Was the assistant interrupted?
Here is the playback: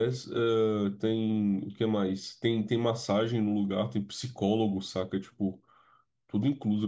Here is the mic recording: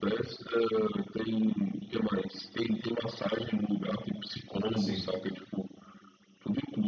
Yes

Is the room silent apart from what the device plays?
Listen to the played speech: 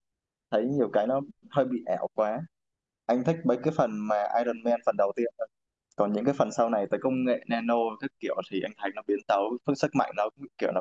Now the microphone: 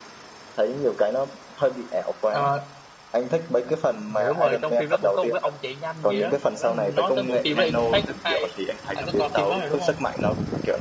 No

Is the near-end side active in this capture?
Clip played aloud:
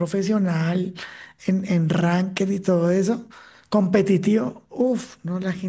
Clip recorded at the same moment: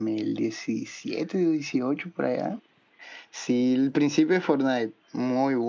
Yes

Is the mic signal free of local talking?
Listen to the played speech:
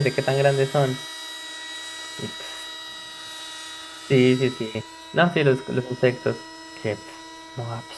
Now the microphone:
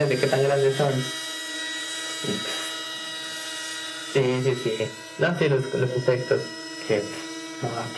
Yes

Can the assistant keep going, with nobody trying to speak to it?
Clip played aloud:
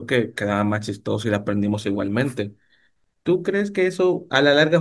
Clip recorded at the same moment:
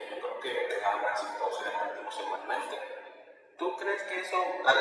Yes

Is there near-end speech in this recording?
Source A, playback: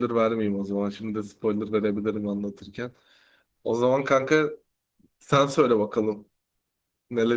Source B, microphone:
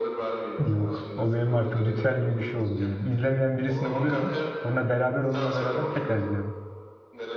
Yes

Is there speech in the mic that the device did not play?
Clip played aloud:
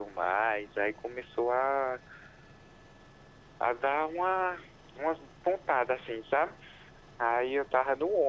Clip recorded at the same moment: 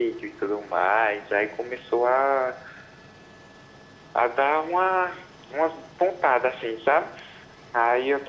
No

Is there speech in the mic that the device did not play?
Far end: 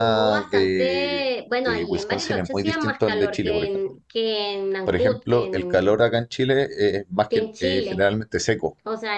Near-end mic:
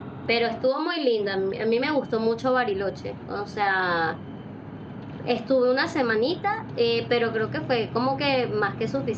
Yes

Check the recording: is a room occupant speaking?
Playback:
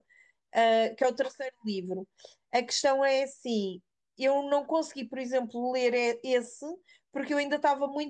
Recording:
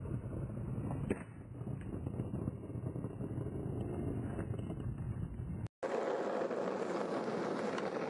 No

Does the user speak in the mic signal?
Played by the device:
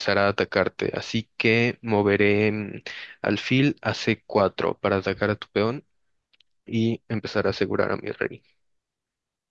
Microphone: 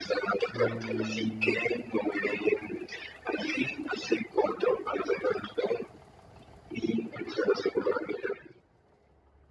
Yes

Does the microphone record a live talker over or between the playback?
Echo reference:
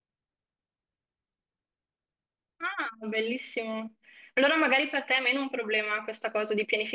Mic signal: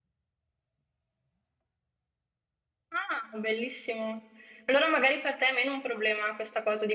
No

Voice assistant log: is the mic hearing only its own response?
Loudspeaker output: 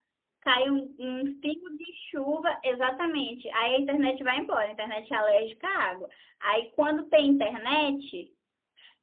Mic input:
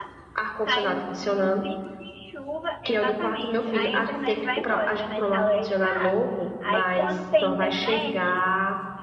No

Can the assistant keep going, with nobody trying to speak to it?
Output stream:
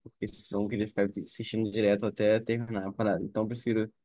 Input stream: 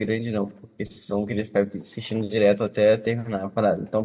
Yes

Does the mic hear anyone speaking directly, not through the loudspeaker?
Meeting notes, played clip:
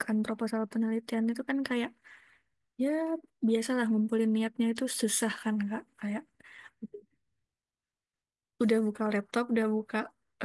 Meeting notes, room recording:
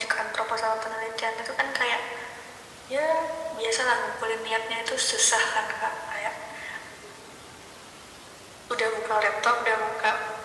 No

